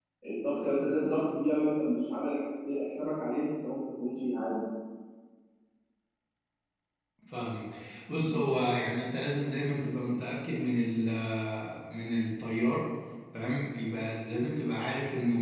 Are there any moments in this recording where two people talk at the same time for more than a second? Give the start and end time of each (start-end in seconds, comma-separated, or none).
none